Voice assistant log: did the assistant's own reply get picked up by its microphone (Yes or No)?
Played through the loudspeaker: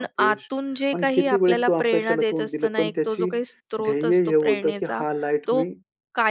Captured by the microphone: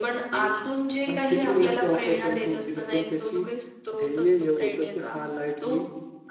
Yes